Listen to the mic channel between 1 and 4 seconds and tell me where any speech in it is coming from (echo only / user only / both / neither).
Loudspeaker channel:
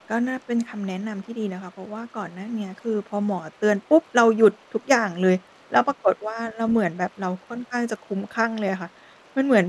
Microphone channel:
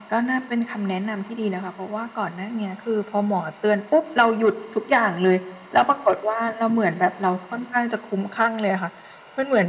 echo only